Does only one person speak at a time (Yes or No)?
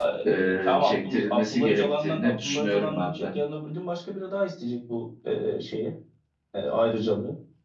No